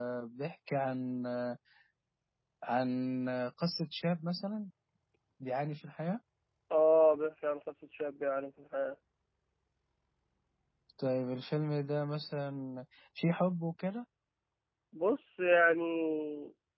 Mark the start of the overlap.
none

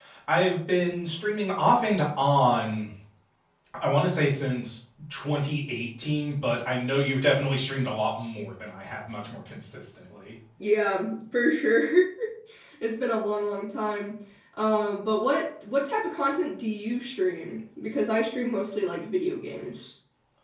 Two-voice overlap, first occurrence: none

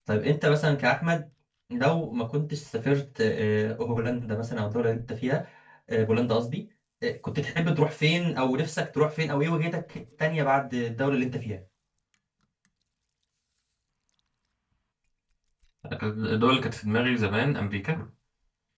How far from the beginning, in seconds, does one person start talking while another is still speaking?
none

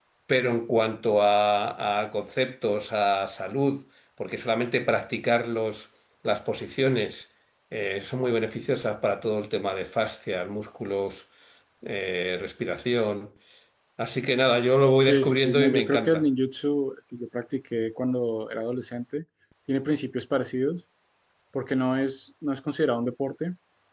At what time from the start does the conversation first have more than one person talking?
15.0 s

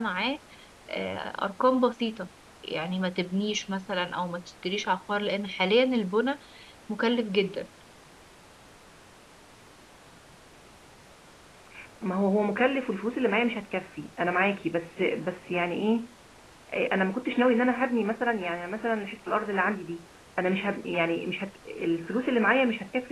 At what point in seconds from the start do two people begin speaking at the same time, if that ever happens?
none

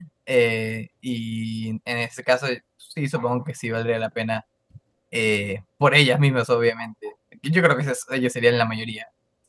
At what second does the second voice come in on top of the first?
none

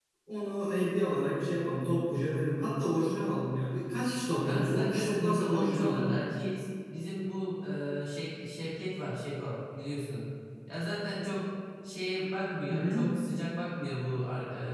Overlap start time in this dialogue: 4.4 s

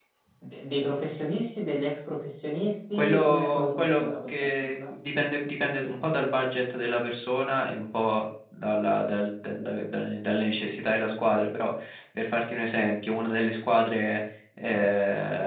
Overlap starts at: 2.9 s

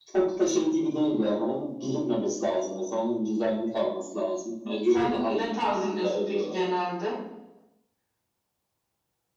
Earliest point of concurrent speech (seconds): 4.9 s

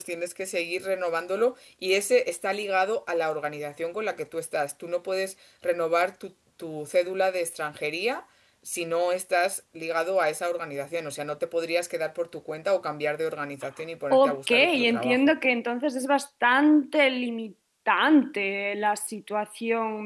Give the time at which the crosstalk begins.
14.1 s

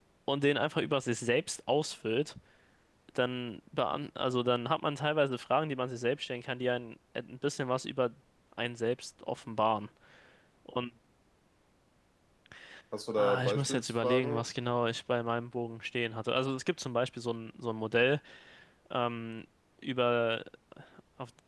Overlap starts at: 13.1 s

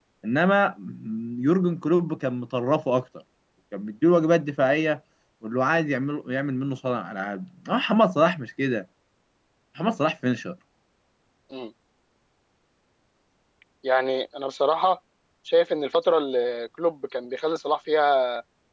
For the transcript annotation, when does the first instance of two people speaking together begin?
none

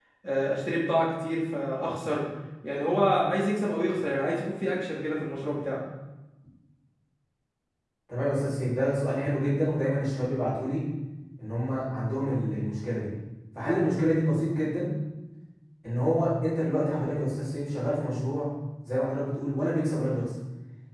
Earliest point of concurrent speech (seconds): none

